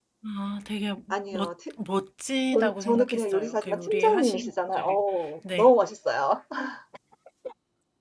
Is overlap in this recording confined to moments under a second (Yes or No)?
No